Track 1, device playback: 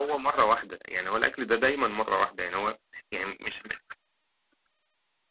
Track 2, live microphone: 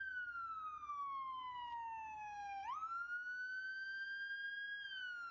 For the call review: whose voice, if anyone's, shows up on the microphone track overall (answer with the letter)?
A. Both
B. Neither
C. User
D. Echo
B